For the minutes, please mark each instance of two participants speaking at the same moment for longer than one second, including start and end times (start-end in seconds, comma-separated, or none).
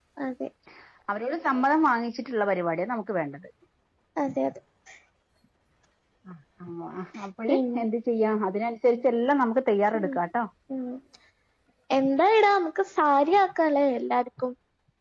none